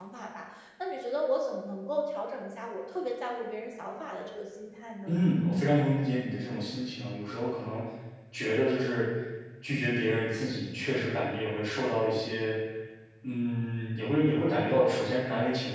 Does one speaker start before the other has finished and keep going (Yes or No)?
No